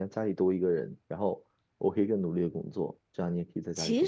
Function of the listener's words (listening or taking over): taking over